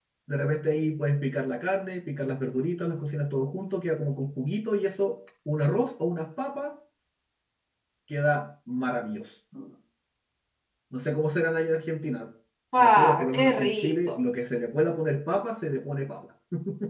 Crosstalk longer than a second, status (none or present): present